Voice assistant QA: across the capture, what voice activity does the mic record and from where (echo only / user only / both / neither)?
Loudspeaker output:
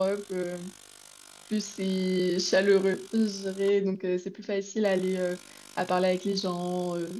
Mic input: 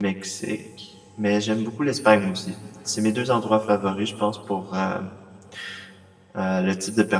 user only